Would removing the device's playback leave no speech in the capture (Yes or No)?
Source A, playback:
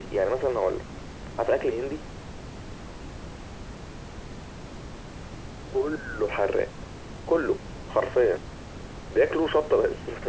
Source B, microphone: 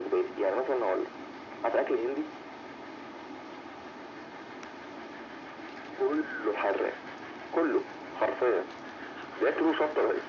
Yes